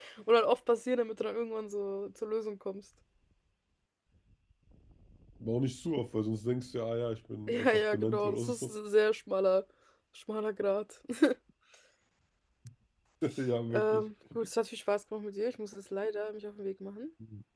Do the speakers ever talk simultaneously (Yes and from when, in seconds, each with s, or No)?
Yes, from 7.5 s